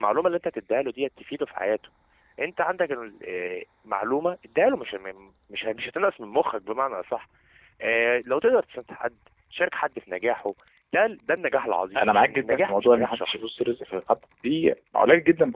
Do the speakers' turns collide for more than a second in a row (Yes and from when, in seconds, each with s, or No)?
Yes, from 11.9 s